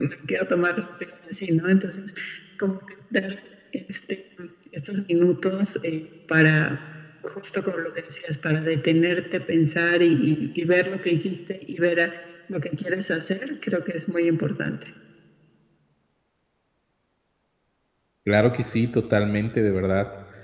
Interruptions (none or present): none